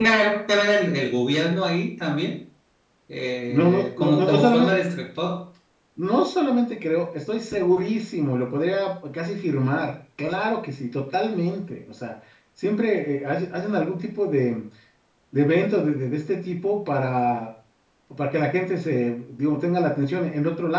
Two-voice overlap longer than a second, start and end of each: 3.5-4.7

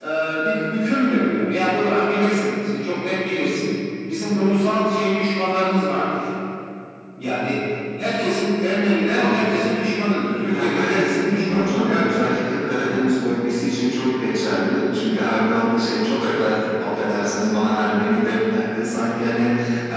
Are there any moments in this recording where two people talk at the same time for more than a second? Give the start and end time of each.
10.5-12.1

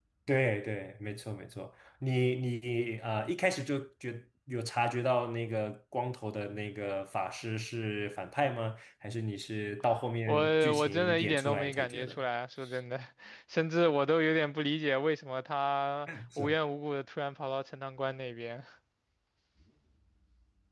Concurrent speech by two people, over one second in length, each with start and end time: 10.3-12.2

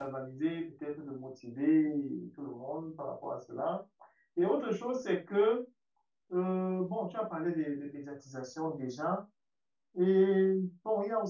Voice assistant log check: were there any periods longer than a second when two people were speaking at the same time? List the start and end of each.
none

